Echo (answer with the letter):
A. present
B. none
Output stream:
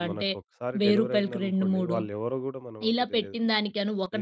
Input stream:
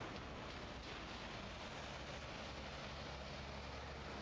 B